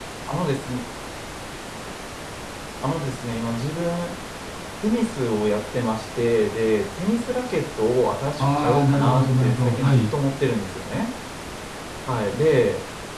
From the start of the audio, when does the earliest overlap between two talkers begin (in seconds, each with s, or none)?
8.4 s